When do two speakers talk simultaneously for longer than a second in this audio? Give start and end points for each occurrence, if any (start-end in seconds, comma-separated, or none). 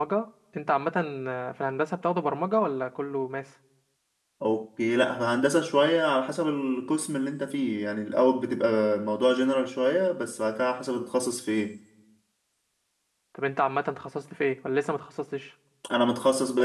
none